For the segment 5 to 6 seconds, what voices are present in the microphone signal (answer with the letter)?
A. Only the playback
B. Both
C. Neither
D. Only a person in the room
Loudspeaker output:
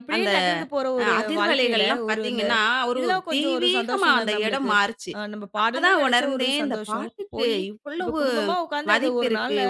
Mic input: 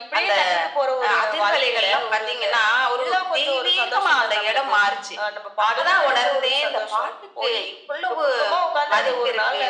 A